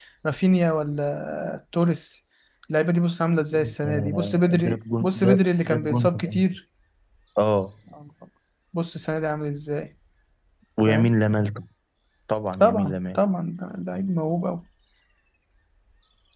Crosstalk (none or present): present